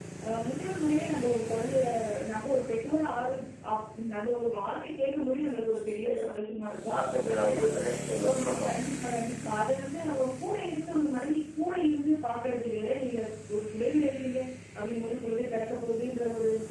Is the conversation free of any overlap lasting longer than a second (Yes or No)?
Yes